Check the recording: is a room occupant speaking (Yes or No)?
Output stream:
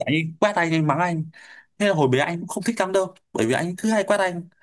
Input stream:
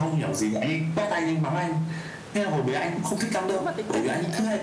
Yes